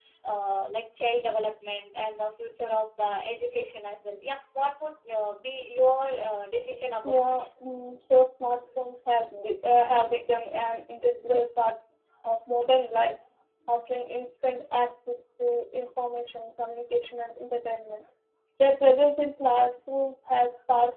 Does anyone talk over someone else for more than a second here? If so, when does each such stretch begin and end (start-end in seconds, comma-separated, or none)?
none